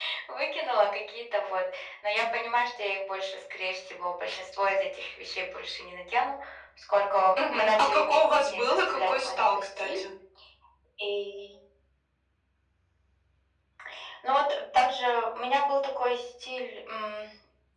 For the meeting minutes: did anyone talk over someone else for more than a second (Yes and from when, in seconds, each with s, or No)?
Yes, from 7.5 s